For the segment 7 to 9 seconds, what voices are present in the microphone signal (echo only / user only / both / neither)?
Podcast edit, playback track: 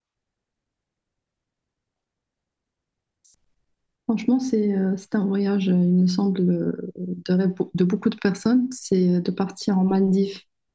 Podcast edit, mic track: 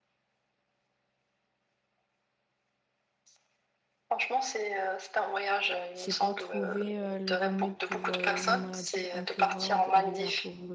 both